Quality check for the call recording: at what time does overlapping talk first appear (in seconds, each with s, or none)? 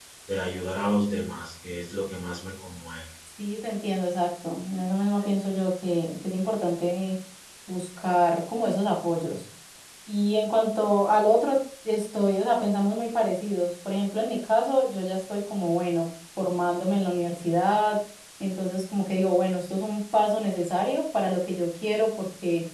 none